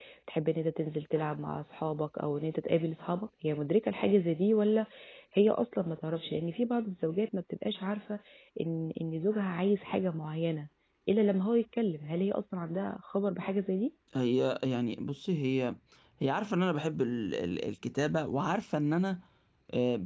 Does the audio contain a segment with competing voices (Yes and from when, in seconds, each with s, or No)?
No